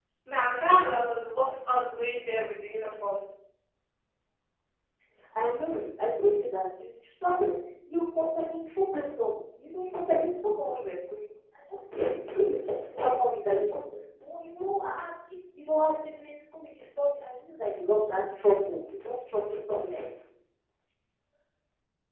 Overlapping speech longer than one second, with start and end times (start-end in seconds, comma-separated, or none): none